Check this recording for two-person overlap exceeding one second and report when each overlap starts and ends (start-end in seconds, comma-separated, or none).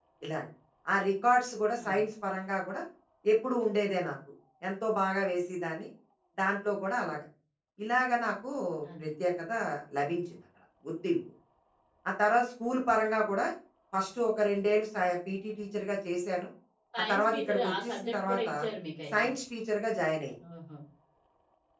17.1-18.5